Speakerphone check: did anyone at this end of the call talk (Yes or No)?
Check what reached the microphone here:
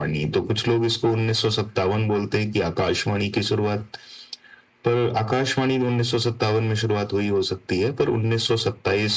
No